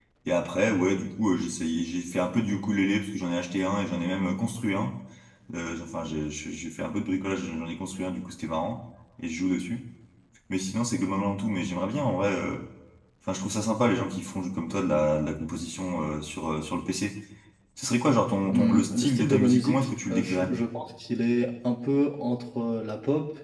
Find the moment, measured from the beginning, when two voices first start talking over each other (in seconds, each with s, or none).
18.5 s